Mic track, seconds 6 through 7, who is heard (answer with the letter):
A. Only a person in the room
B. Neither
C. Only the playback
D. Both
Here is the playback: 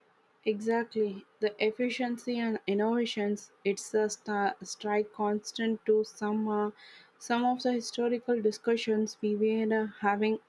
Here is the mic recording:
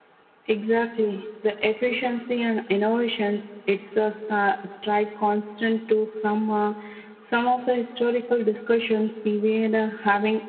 C